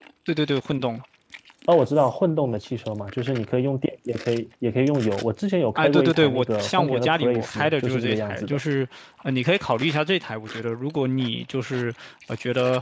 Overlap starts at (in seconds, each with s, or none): 5.8 s